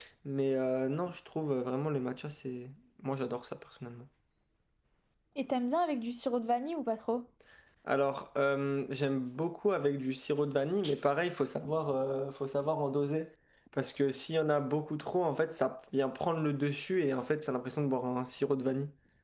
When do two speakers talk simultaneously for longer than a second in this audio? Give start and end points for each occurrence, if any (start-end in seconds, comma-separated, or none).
none